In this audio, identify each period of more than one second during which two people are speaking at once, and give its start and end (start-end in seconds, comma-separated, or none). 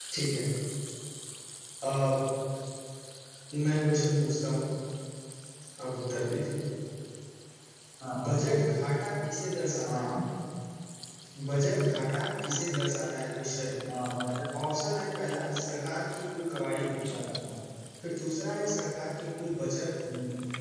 none